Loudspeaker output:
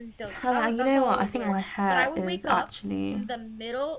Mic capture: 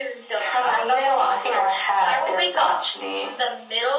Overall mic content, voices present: echo only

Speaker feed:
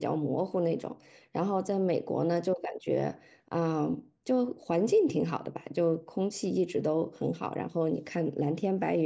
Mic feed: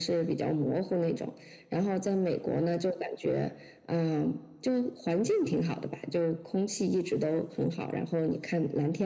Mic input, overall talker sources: echo only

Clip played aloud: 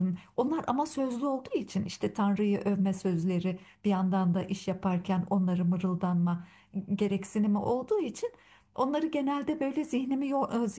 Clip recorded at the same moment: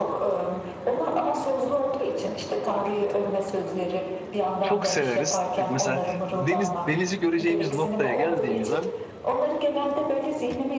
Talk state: both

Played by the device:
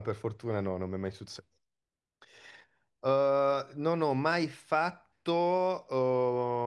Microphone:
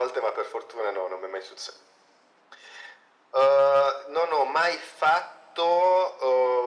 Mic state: echo only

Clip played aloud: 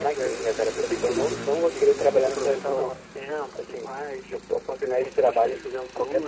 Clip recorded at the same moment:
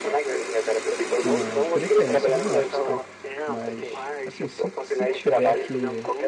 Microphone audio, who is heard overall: both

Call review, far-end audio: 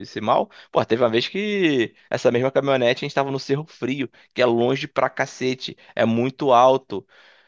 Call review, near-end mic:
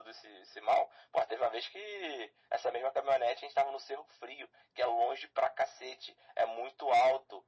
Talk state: echo only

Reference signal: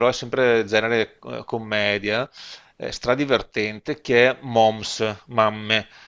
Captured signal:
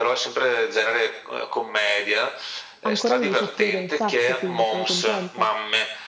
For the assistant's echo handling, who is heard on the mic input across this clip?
both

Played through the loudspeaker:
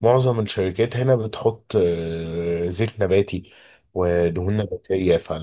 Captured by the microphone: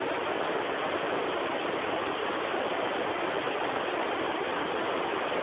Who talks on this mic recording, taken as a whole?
neither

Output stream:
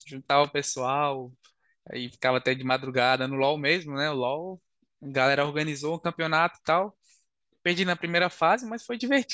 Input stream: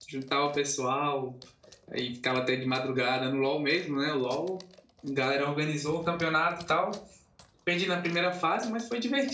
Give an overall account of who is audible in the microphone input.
echo only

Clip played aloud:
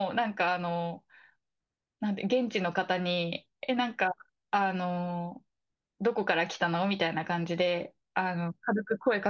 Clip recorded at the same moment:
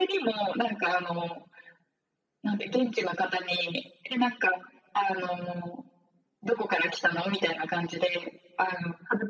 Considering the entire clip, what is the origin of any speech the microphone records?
echo only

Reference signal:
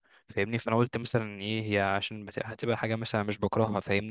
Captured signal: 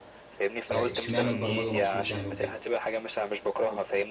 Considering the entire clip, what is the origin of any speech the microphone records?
both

